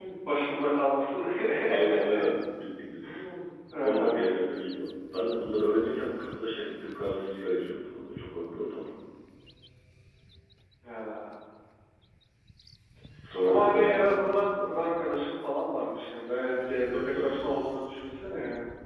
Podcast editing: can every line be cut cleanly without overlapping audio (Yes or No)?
No